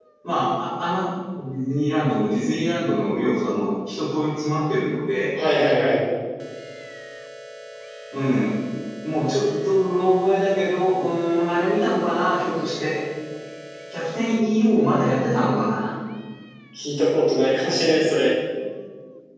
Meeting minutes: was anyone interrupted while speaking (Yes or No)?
No